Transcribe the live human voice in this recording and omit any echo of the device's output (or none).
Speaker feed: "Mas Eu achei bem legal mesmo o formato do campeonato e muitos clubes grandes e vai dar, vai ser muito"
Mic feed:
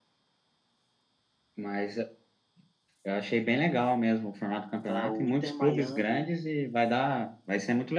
tá o Inter Miami